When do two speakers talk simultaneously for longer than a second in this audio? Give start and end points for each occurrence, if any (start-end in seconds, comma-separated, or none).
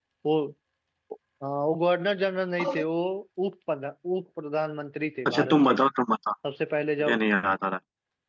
none